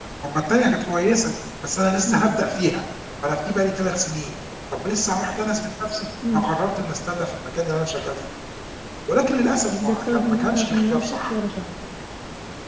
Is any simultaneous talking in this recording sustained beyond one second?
Yes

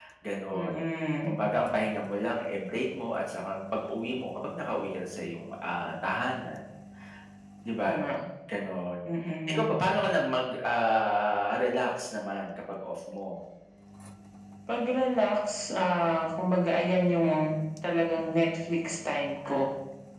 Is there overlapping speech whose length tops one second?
No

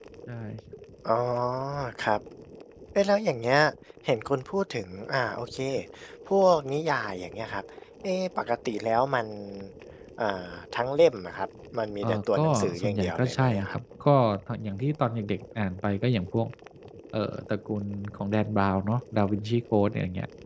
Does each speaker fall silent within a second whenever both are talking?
No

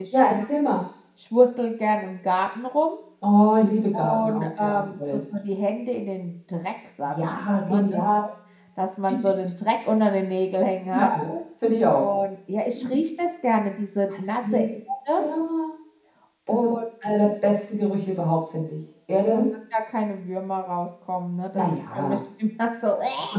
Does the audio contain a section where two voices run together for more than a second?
Yes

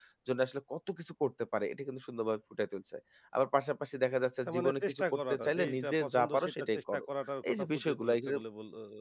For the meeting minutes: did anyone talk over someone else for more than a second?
Yes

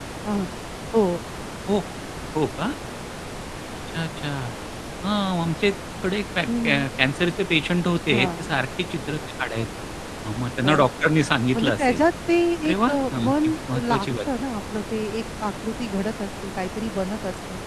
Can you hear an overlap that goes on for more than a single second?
Yes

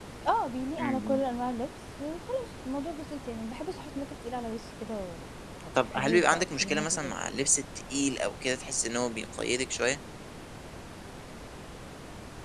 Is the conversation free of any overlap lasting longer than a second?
No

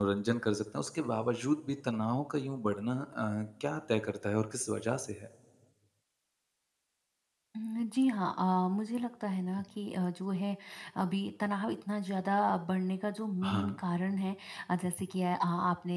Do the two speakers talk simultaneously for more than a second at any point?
No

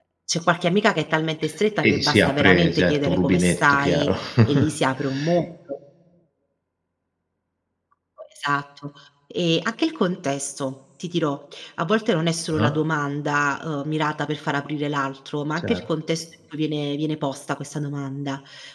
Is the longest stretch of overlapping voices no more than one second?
No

